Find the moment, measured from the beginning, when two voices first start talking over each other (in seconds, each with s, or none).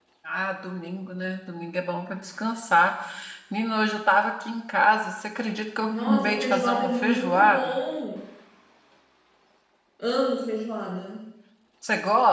5.9 s